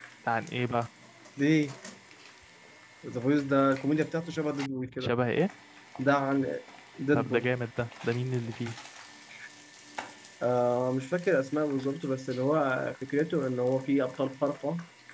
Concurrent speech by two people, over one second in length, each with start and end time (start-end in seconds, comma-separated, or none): none